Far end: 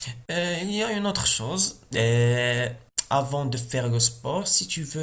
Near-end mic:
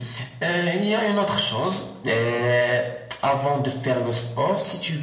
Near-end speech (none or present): none